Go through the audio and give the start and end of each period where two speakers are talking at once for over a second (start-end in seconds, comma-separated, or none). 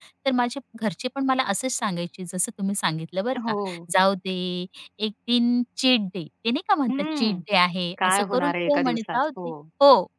8.0-9.5